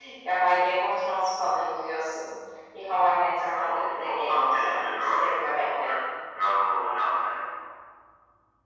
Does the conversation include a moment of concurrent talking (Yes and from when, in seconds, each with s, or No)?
Yes, from 3.6 s